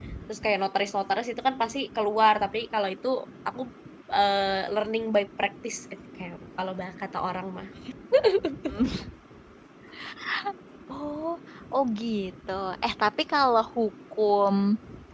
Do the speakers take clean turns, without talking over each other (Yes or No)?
Yes